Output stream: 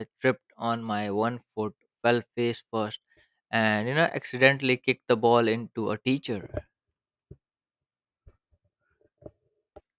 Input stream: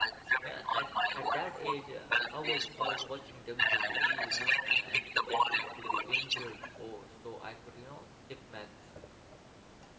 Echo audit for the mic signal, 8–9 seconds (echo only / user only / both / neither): user only